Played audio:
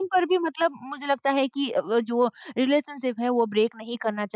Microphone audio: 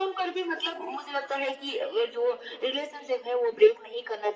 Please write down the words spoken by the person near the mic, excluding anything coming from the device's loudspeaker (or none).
none